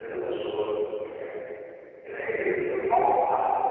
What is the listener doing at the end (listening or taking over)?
taking over